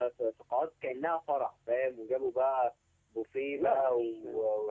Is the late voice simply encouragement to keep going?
Yes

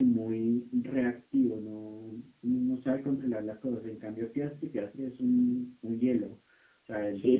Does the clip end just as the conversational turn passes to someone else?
Yes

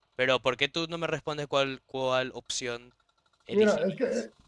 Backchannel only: No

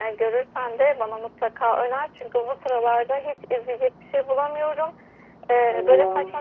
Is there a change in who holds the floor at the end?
No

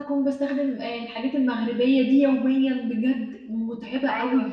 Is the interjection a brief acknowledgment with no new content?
No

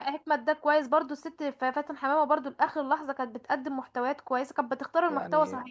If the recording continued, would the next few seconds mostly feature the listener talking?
Yes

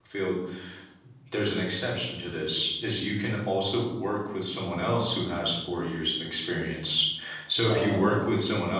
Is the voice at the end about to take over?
No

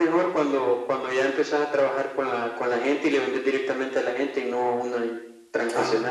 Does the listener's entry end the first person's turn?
Yes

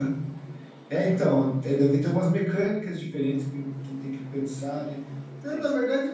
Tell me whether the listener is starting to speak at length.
No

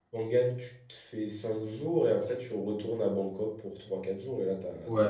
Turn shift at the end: Yes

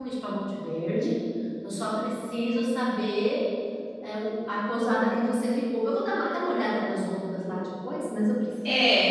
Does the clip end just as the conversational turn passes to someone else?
Yes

